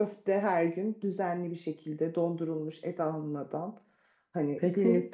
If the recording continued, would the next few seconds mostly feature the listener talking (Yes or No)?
Yes